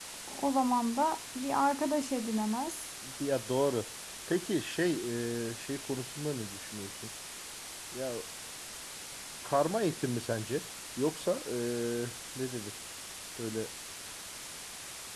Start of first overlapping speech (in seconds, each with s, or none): none